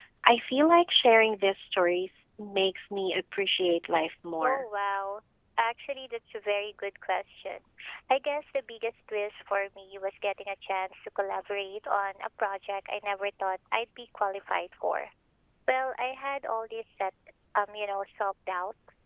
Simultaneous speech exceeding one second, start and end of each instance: none

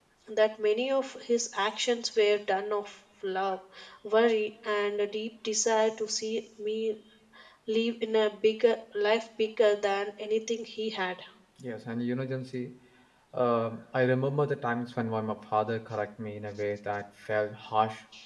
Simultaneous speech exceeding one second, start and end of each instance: none

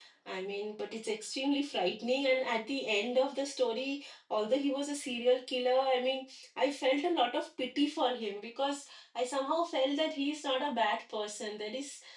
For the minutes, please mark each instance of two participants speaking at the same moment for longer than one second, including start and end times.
none

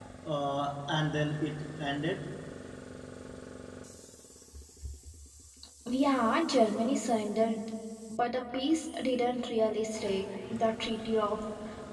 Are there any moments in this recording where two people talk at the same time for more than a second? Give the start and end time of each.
none

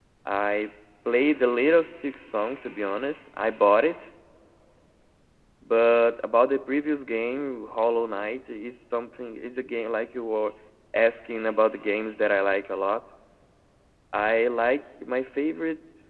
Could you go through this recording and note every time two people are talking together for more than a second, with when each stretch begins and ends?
none

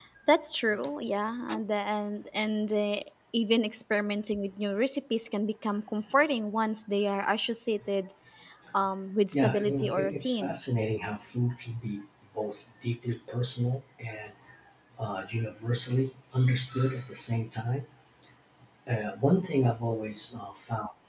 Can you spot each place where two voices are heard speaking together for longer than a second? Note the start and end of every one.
9.3-10.6

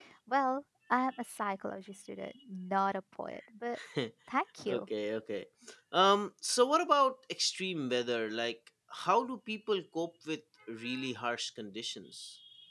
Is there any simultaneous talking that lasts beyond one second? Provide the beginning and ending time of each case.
none

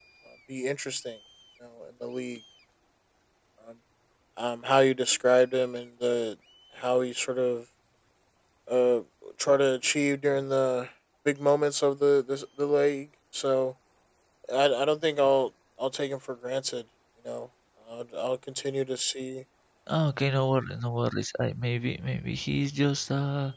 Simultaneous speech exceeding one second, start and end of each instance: none

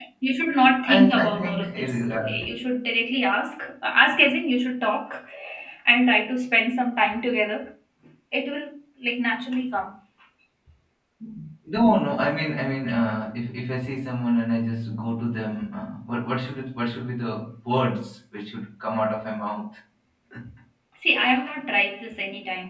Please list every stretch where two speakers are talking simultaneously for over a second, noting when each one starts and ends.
0.8-2.4

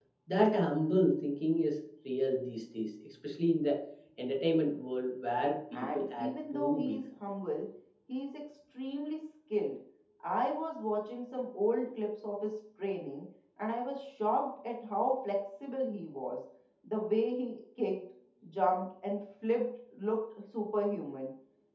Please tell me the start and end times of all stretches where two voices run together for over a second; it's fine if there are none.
5.7-7.0

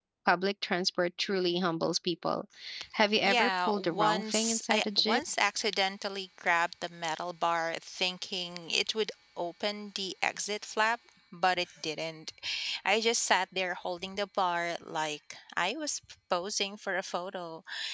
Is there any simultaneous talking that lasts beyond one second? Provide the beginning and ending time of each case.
3.2-5.2

